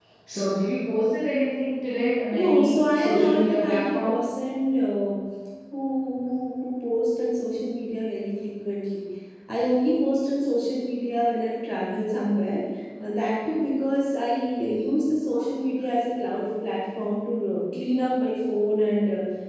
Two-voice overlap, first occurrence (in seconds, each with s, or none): 2.3 s